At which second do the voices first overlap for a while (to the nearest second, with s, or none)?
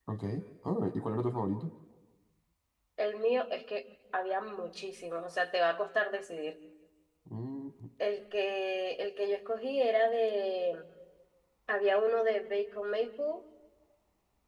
none